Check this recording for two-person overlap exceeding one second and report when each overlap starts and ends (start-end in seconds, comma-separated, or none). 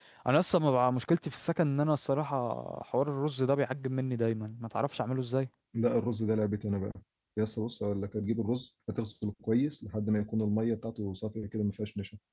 none